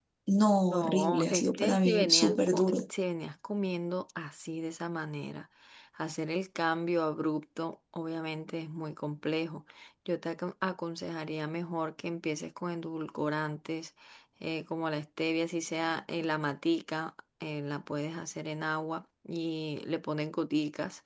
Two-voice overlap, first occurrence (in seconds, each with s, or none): 0.7 s